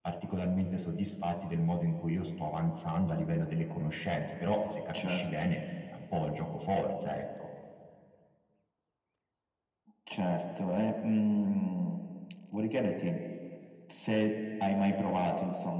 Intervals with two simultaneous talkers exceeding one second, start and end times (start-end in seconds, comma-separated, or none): none